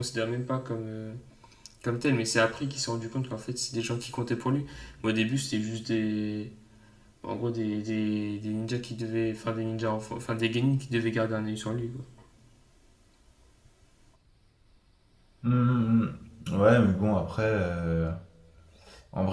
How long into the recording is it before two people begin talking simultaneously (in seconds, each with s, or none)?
none